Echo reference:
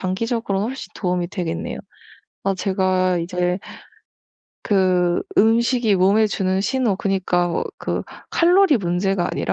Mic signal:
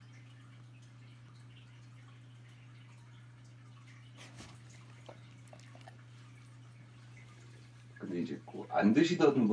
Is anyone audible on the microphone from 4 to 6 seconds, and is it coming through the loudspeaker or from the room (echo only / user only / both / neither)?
neither